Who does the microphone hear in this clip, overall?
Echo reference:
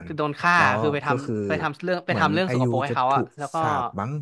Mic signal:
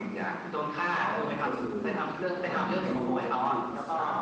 echo only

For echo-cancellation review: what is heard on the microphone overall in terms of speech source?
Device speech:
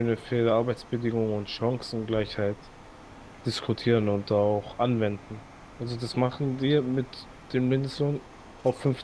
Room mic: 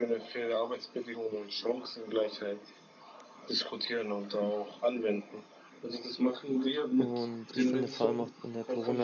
both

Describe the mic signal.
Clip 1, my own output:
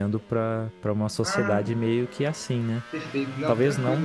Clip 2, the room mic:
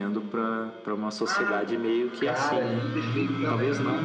both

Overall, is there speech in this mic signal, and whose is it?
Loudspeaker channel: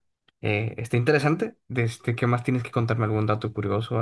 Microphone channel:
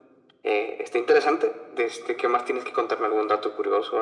echo only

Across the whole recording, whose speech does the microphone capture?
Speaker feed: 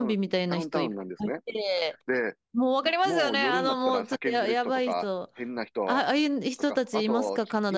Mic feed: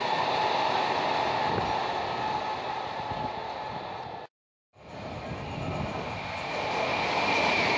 neither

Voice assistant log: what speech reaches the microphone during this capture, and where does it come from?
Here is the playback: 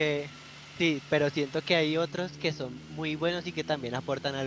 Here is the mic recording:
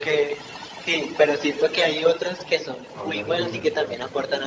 both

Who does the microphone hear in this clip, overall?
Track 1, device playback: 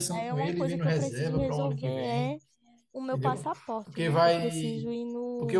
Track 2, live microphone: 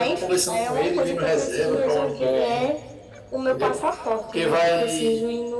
echo only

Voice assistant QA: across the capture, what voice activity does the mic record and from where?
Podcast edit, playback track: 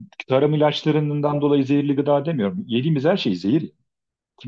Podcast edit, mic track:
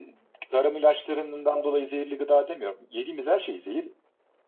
echo only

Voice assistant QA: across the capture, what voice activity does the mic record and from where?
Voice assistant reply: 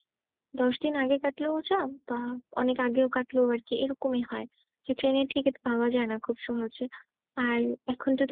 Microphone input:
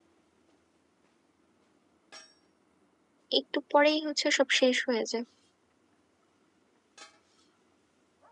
user only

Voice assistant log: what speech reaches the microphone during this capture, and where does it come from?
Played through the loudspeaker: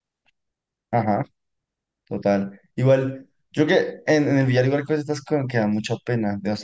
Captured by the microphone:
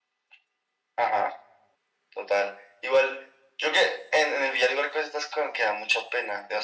echo only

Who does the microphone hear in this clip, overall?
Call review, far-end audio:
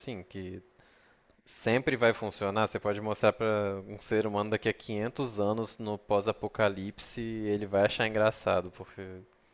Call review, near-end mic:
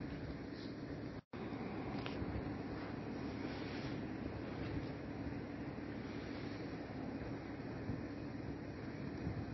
neither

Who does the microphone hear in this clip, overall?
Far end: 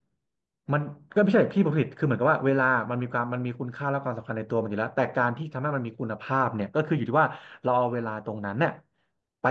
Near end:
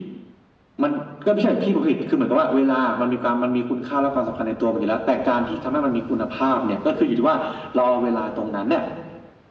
echo only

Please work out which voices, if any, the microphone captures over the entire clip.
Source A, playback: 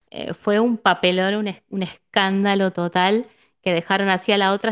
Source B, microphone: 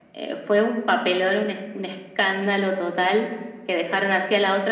both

